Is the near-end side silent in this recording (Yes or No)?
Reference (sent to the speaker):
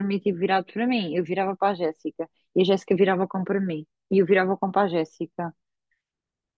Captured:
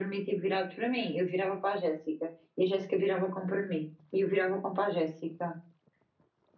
Yes